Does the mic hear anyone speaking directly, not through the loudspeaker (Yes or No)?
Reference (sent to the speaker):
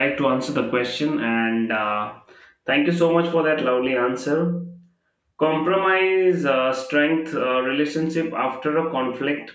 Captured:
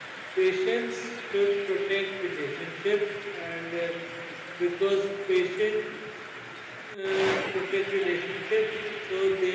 Yes